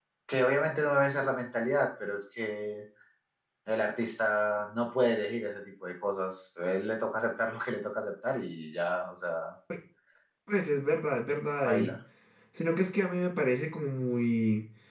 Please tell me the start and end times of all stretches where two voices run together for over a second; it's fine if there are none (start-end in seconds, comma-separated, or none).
none